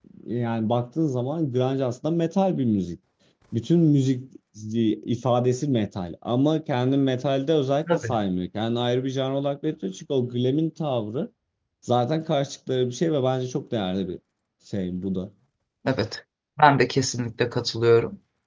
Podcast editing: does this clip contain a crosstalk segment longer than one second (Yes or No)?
No